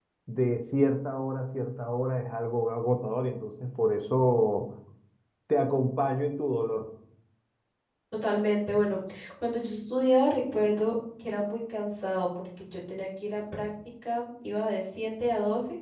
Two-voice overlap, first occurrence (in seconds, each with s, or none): none